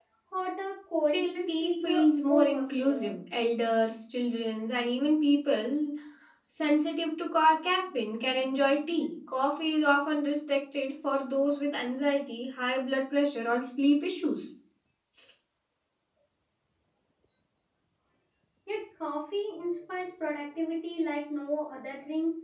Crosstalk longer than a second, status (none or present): present